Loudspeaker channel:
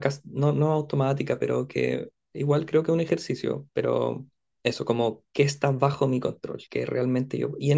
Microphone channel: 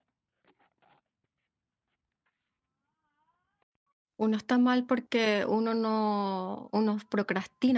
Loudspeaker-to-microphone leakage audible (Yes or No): No